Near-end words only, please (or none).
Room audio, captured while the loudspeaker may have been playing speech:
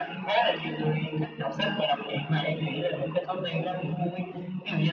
none